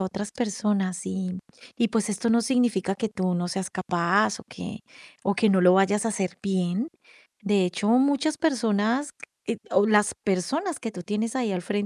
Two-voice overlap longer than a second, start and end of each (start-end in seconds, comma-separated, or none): none